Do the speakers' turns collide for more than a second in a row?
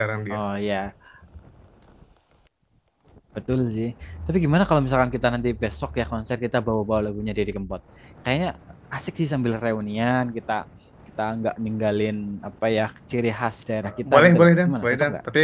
Yes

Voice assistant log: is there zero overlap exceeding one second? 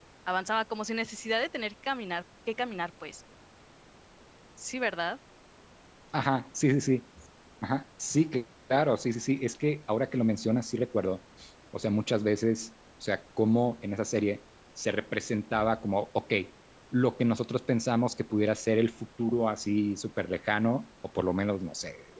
Yes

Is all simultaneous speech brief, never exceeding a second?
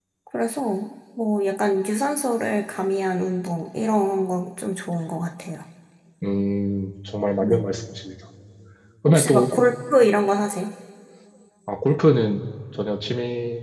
Yes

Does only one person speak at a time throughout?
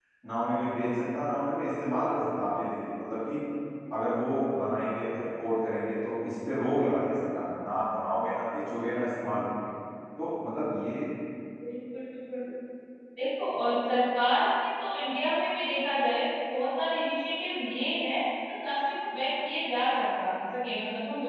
Yes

